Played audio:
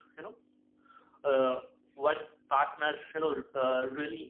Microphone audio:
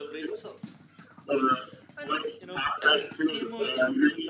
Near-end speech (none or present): present